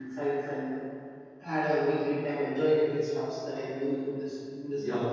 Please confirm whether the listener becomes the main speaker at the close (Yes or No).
Yes